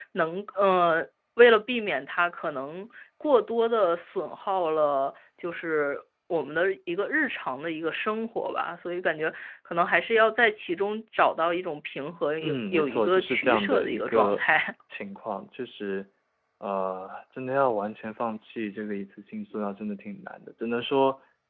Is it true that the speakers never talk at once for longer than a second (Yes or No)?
No